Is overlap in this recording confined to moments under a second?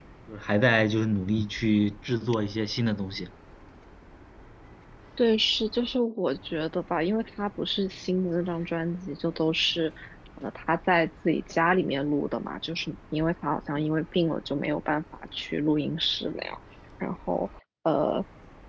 Yes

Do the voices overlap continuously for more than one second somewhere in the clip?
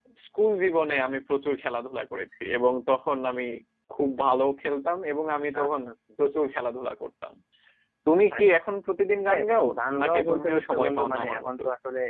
Yes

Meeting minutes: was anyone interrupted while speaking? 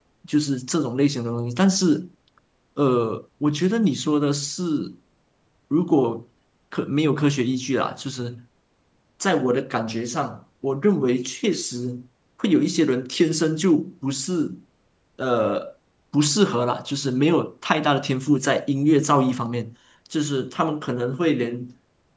No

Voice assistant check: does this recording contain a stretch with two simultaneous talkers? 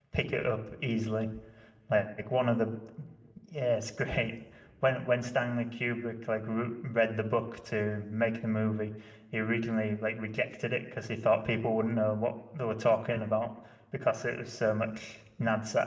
No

